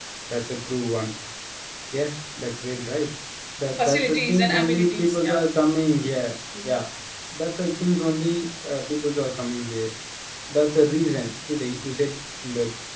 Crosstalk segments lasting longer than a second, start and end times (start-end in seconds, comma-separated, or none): 3.8-5.4